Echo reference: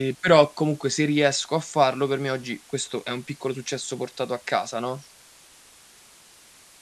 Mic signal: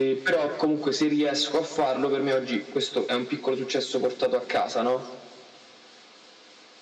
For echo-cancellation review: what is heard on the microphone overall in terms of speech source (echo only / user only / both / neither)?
echo only